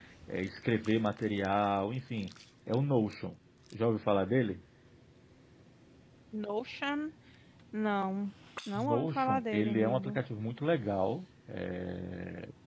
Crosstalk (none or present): present